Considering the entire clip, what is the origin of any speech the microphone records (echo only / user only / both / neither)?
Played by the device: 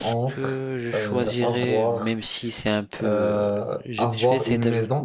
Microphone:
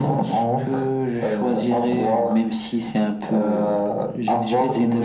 echo only